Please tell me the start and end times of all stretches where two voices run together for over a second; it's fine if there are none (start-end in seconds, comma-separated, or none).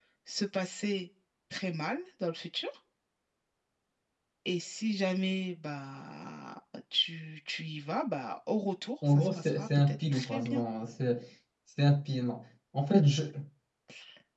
9.1-10.6